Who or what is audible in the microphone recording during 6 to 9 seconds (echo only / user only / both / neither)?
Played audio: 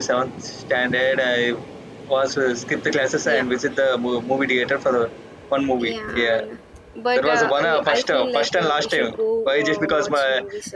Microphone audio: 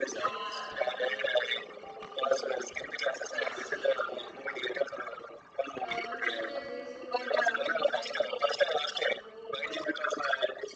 both